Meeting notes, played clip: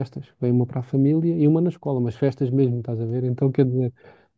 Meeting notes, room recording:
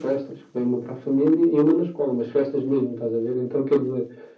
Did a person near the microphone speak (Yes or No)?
No